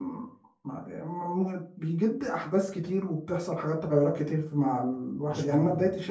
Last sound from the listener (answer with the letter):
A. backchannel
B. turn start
A